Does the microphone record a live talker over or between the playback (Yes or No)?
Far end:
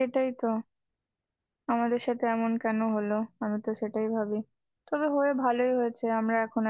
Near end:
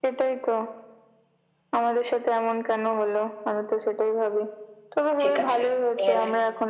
Yes